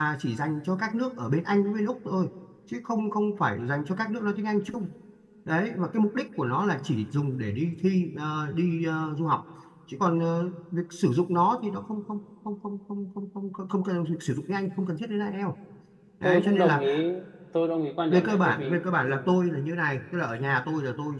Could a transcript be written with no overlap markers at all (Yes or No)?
No